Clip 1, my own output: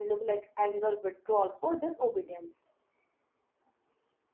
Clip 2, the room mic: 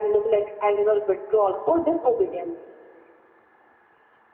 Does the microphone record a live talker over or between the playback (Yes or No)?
No